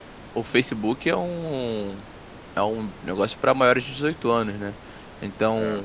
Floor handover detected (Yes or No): No